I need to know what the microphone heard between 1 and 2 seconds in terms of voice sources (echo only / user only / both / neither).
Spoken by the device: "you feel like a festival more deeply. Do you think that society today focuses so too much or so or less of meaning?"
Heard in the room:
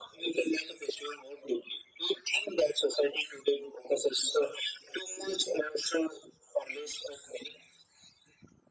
echo only